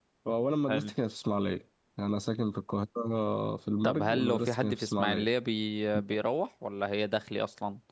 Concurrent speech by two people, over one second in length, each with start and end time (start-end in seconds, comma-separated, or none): 3.8-5.3